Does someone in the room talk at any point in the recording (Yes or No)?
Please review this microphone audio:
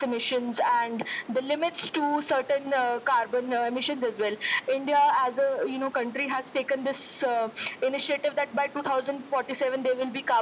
No